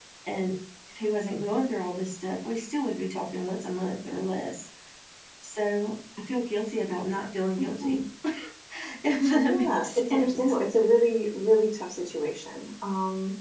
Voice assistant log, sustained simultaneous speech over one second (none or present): present